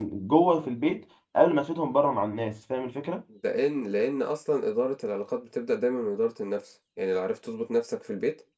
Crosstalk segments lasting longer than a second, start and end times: none

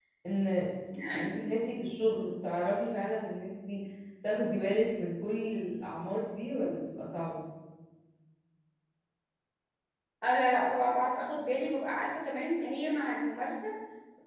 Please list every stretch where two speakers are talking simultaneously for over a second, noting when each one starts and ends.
none

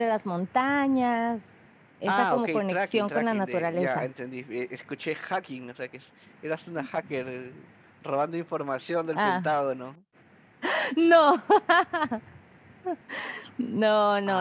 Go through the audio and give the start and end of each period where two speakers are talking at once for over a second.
2.1-4.1

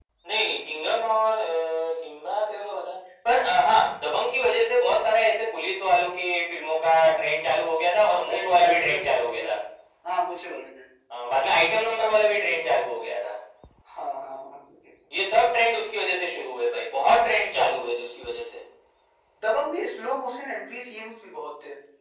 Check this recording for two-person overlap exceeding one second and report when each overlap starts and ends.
8.3-9.5

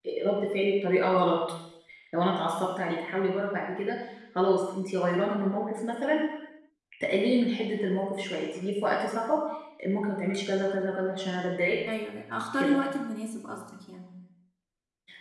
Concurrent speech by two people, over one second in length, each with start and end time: none

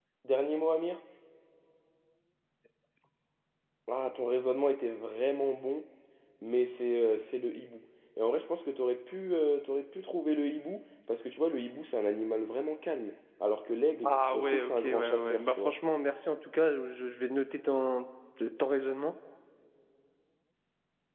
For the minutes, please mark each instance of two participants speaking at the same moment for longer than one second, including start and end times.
14.0-15.8

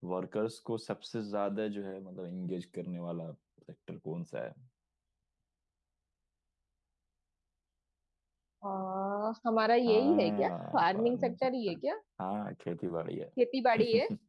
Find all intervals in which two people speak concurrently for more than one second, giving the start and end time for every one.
9.9-11.8

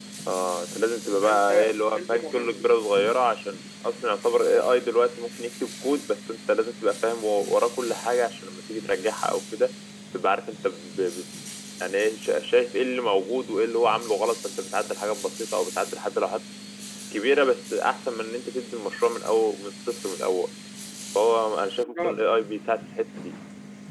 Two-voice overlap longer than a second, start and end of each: 1.2-2.7

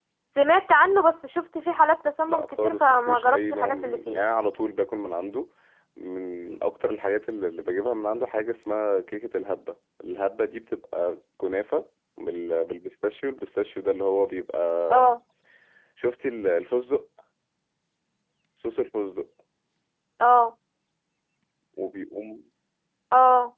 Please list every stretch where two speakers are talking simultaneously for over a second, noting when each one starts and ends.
2.3-4.2

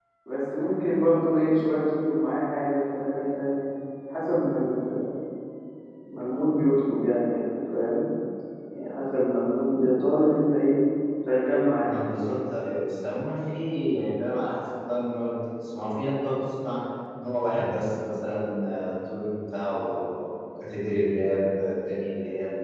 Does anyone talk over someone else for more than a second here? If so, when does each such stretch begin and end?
none

